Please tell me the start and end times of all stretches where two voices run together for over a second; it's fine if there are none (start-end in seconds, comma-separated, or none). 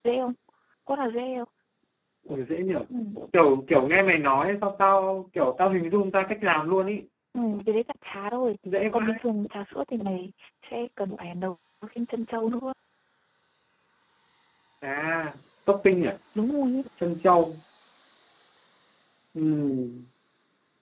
none